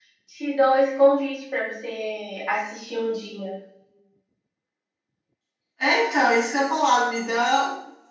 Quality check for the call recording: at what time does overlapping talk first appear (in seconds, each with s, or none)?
none